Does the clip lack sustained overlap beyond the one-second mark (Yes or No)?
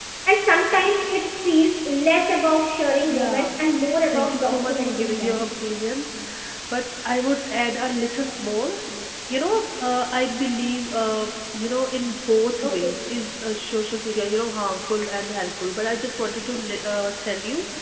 No